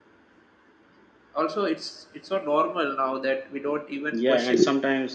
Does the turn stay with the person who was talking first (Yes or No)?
No